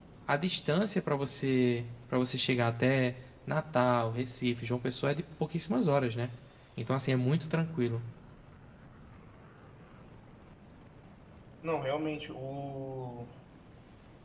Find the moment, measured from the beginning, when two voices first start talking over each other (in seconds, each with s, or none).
none